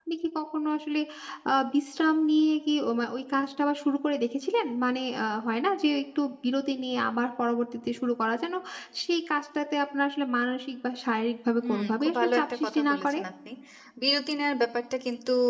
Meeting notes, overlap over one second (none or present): present